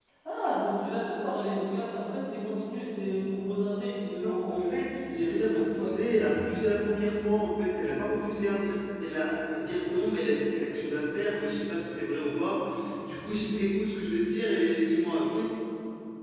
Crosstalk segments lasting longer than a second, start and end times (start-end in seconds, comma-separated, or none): 4.1-5.9